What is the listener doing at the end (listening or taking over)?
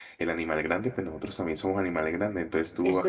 listening